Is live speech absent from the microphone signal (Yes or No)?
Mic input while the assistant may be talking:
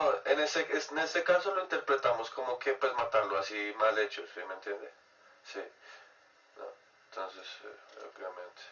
Yes